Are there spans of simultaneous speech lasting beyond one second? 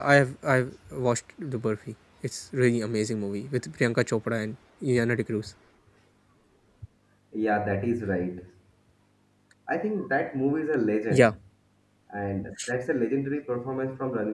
No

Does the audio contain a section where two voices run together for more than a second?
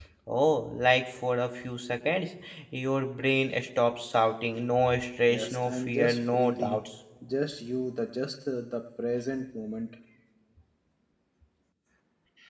Yes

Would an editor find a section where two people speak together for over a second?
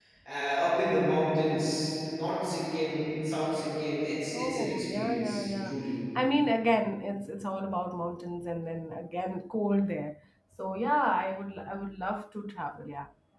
Yes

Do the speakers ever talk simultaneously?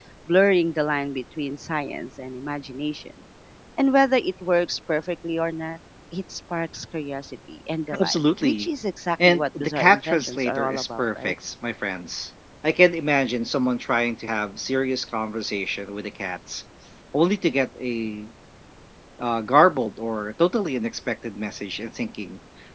Yes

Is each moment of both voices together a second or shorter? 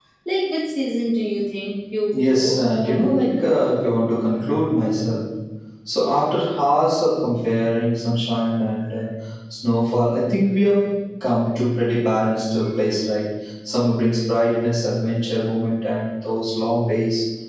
No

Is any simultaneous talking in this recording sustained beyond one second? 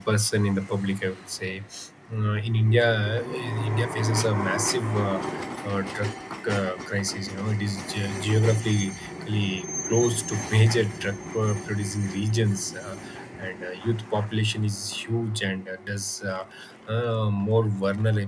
No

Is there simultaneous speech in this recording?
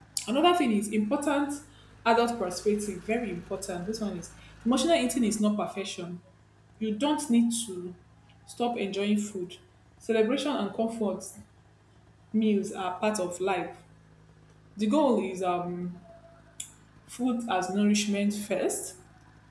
No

